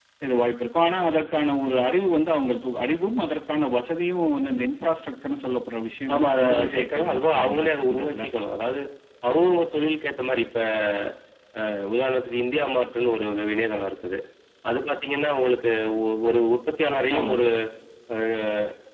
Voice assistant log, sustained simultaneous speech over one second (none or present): present